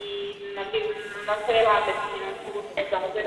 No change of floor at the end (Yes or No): No